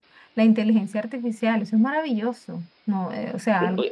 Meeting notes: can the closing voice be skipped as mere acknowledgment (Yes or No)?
No